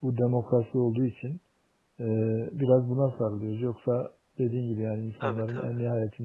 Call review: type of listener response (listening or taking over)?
listening